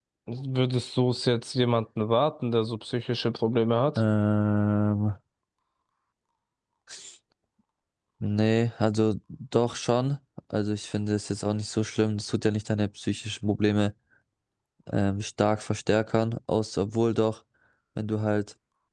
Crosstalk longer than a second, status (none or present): none